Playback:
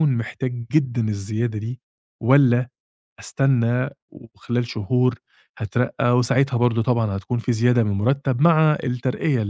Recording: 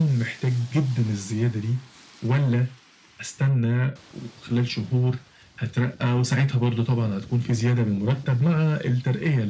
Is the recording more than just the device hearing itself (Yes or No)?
No